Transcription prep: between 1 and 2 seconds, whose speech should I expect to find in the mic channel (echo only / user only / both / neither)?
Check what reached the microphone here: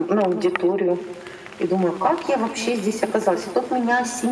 echo only